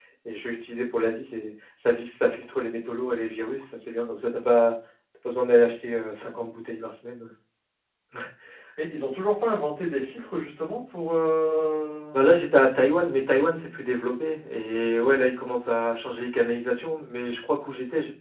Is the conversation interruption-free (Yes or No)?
Yes